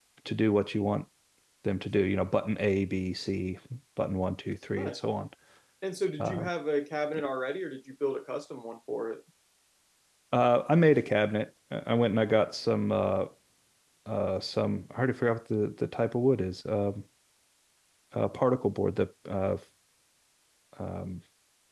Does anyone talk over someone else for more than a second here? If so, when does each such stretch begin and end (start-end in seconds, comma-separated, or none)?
none